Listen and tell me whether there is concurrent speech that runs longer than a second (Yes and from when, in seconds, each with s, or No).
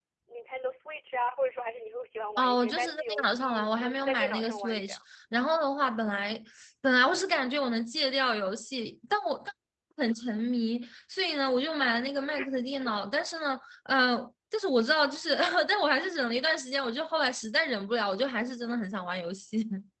Yes, from 2.4 s